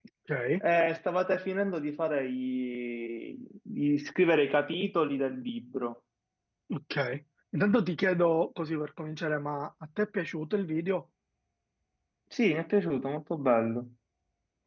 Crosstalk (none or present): none